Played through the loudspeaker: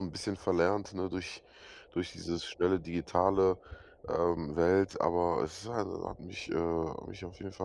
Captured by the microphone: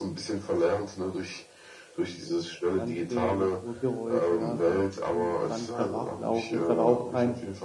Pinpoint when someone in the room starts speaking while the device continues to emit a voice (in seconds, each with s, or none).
2.7 s